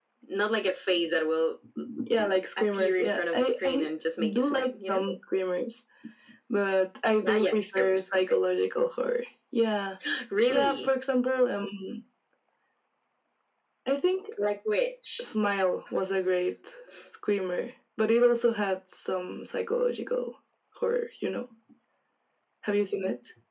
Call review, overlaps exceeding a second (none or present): present